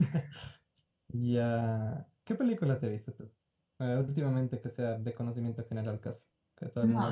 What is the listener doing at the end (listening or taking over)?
taking over